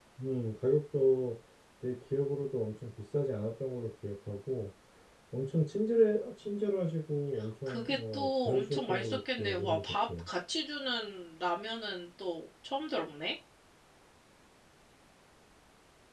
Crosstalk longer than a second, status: present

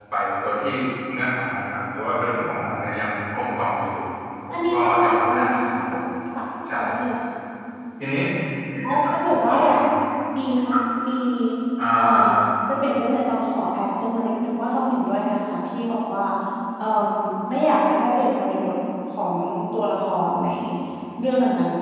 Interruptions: present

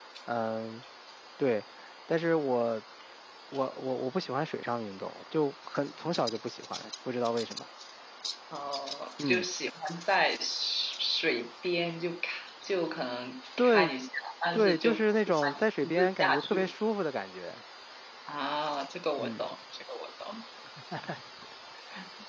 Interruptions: present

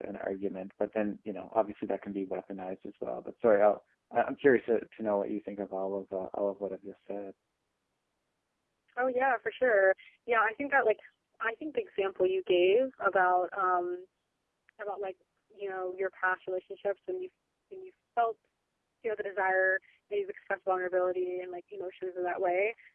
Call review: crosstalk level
none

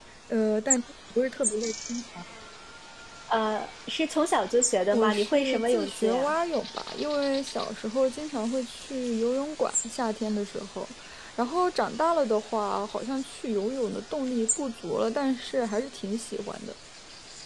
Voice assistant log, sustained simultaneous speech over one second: present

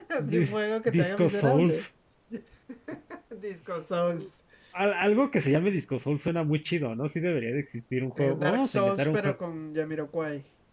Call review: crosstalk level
present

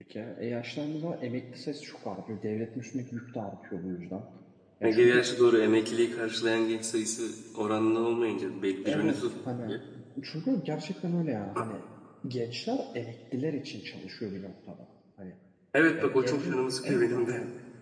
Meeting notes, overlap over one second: present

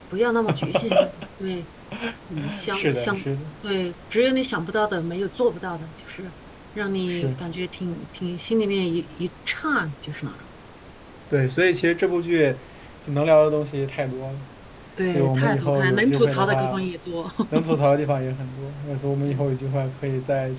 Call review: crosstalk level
present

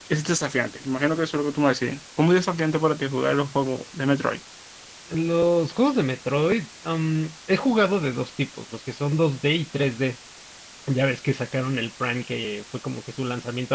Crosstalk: none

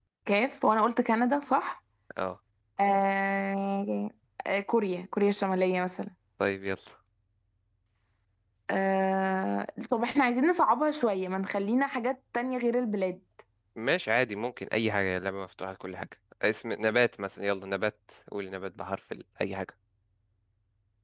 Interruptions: none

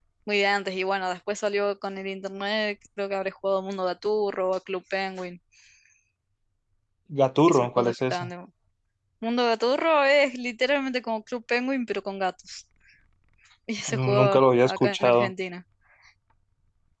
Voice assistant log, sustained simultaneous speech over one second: present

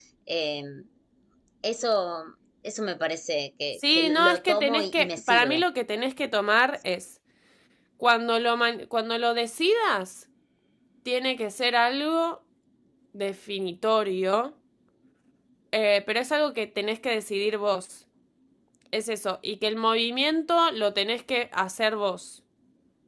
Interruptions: present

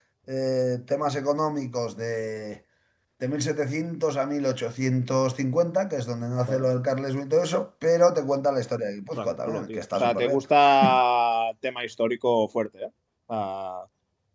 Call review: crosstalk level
present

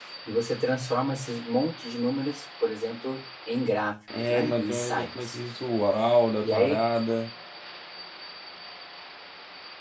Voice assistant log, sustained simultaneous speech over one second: present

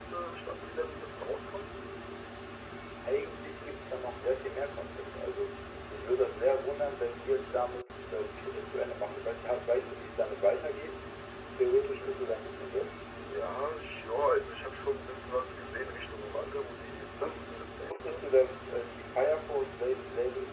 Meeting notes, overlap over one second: present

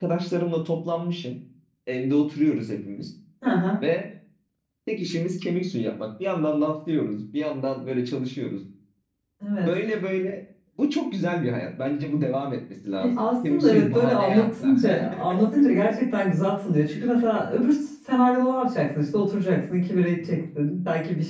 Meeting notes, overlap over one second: present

